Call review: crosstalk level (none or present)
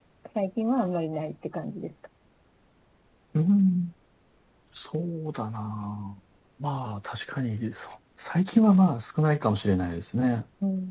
none